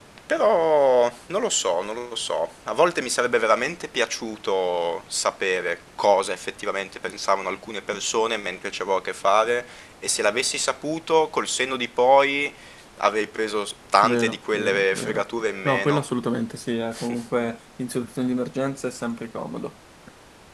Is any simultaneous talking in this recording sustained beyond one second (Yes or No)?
Yes